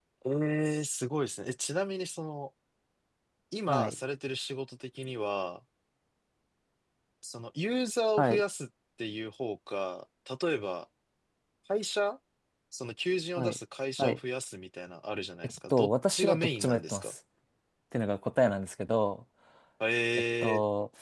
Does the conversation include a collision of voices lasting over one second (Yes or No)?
Yes